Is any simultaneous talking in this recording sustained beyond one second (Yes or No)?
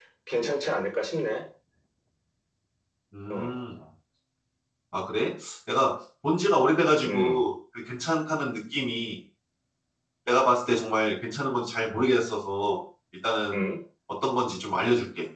No